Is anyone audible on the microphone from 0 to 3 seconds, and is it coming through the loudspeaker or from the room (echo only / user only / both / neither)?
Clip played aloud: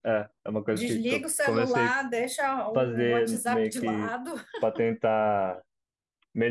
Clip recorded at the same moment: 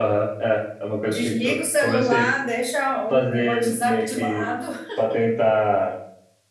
echo only